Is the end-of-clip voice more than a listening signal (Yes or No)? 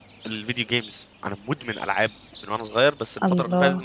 No